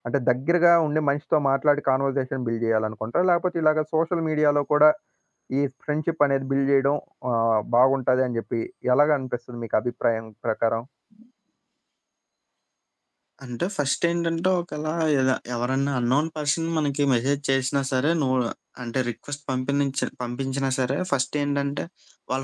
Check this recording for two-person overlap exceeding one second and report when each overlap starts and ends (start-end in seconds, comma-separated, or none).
none